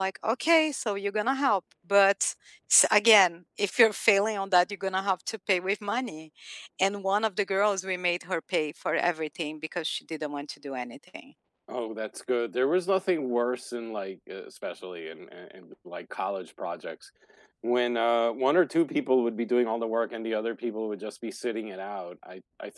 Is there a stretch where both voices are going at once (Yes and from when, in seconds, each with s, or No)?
No